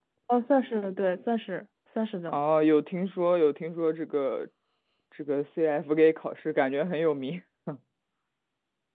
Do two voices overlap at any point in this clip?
No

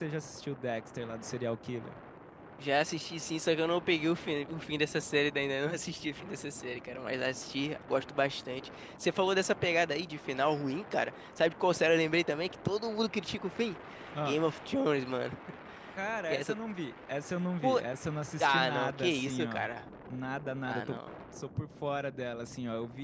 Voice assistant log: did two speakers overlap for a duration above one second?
Yes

